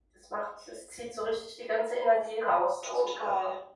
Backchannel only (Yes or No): No